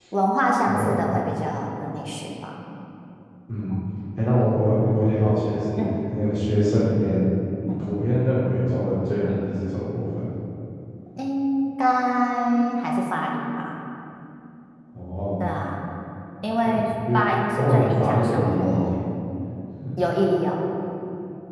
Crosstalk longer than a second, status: present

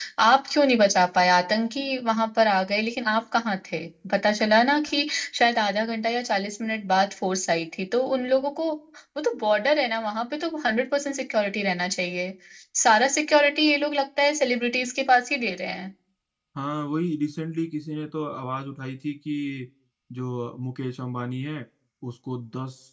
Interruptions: none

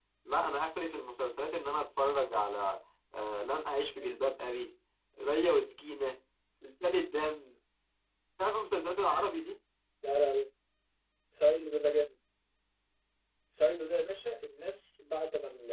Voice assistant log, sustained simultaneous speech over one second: none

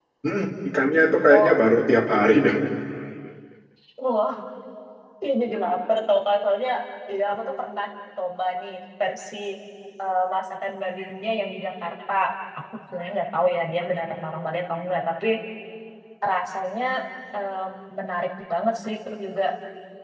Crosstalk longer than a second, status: none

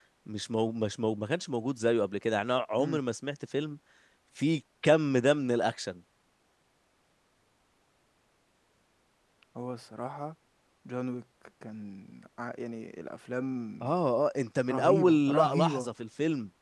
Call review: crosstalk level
present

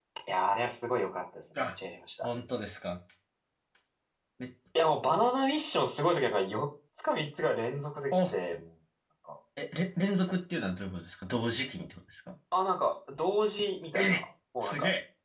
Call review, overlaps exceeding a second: none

